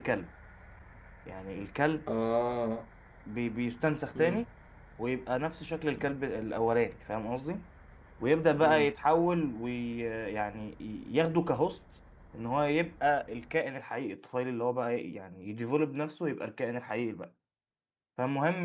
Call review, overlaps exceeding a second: none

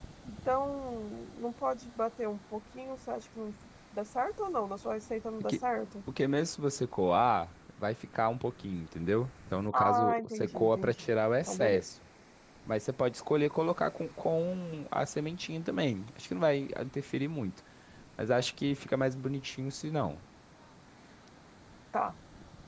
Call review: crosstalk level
present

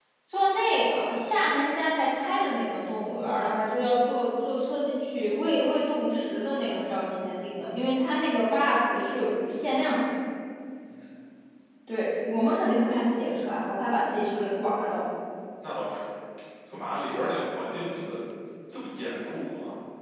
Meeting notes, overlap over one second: none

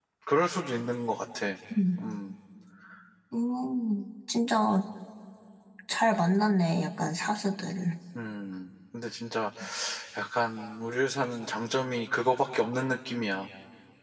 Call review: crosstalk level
none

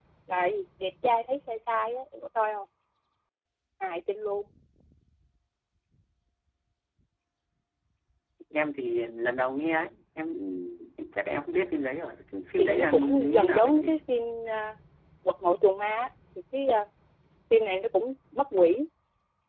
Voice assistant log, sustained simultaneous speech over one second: present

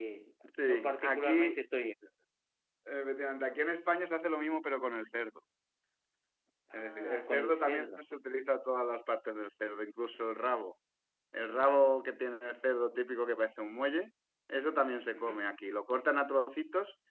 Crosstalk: present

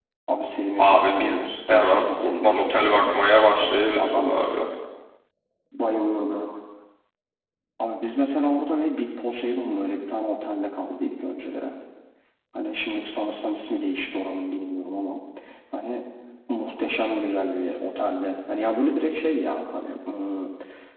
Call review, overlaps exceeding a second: present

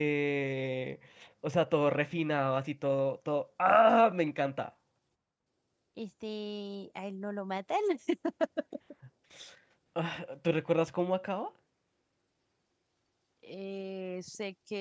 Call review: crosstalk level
none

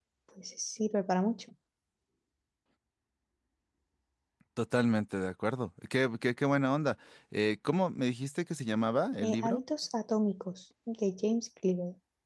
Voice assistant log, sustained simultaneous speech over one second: none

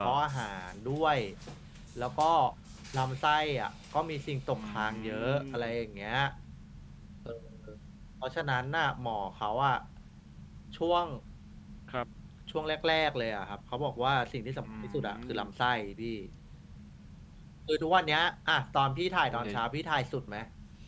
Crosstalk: present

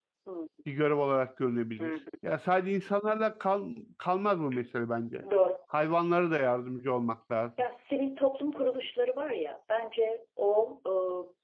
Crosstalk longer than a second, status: none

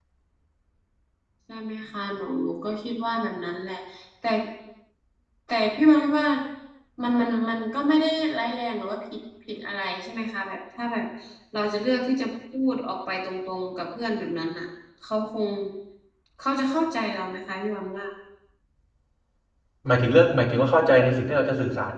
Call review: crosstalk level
none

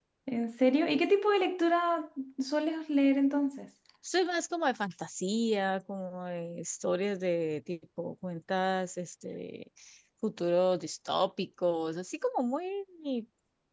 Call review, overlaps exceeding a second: none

